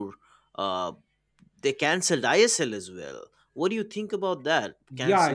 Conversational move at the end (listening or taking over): taking over